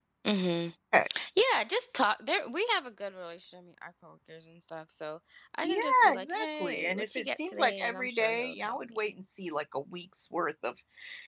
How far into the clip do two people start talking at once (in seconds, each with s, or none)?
5.6 s